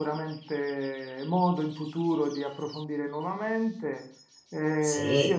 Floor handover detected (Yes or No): No